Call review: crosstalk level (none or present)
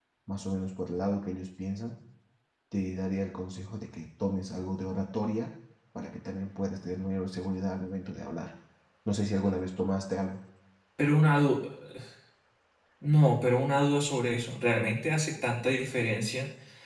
none